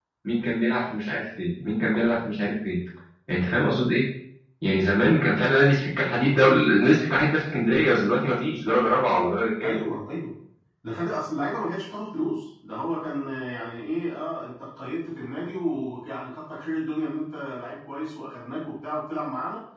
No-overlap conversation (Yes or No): Yes